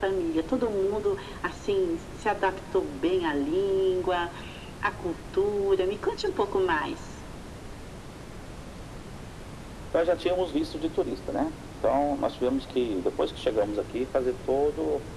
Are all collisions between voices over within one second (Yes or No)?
Yes